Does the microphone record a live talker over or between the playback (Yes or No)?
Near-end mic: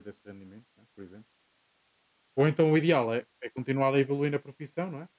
Yes